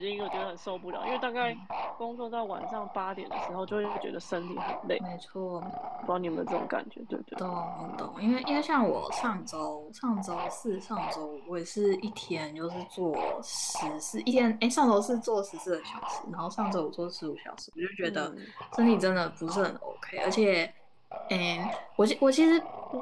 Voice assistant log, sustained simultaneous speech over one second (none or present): none